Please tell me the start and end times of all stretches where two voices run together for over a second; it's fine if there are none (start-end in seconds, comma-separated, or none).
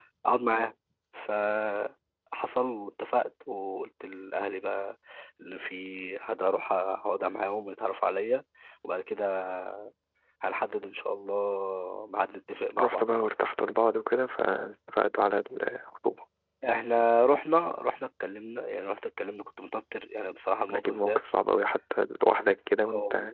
none